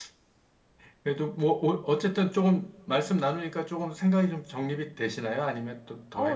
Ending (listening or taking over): taking over